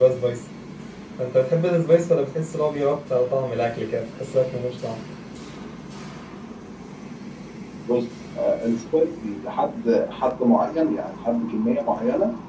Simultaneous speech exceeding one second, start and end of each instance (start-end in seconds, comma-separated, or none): none